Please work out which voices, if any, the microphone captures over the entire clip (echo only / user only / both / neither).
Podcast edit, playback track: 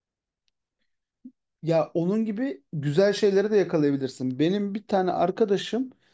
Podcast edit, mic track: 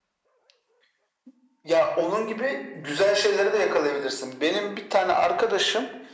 echo only